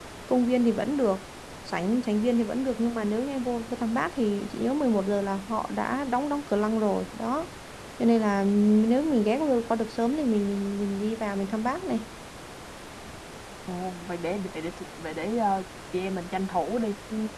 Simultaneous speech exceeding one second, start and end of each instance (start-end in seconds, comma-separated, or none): none